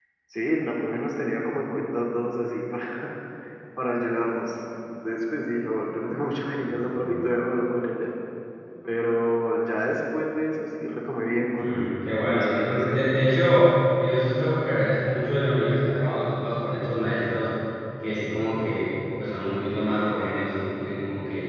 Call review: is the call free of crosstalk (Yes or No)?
No